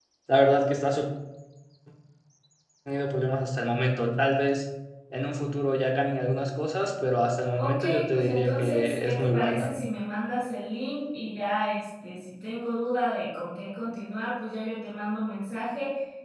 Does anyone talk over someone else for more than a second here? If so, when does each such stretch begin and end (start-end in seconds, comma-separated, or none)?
7.5-9.7